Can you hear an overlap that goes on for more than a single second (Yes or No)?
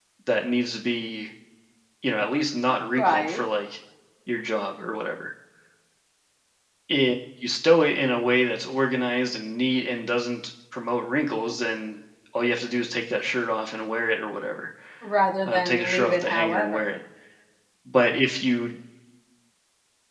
Yes